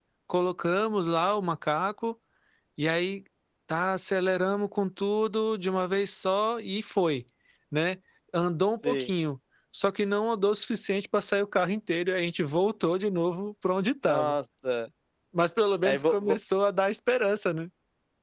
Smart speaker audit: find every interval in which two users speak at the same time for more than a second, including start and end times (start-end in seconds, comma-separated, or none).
none